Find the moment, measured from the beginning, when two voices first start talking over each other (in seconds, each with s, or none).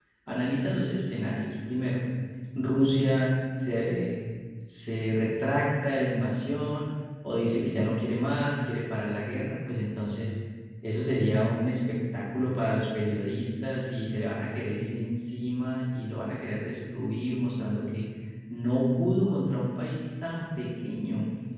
none